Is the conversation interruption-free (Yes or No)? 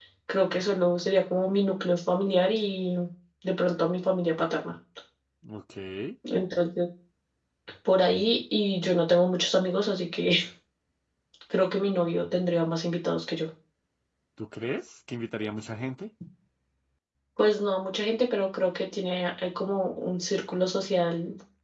Yes